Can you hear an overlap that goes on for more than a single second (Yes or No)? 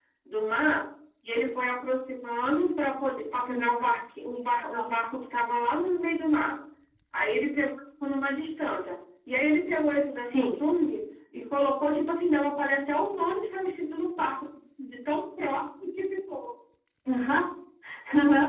No